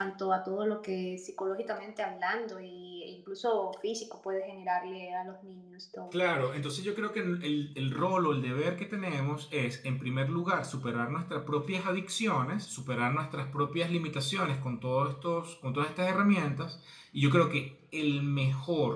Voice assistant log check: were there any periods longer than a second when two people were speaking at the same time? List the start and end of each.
none

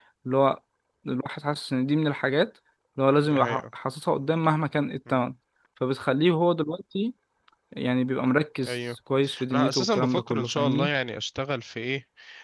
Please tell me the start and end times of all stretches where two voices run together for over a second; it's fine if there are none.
9.5-10.9

